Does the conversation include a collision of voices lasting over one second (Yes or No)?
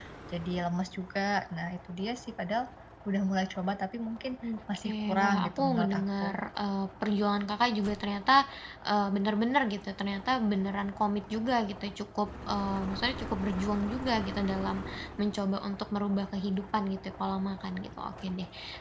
Yes